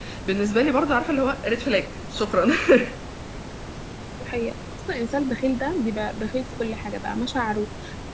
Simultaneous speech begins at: none

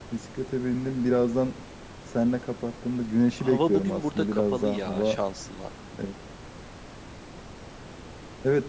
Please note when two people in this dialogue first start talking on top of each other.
3.4 s

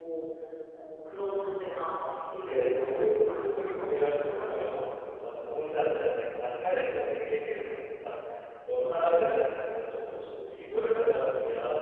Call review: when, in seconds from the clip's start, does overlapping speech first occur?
2.4 s

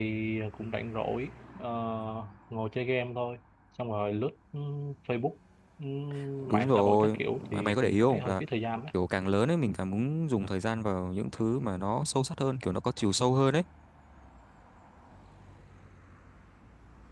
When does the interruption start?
6.5 s

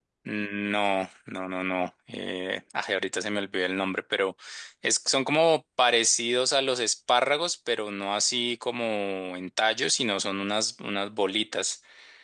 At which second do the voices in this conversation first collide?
none

